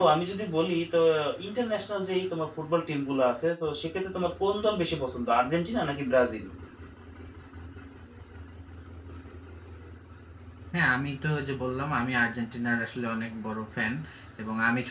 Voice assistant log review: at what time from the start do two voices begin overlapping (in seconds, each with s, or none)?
none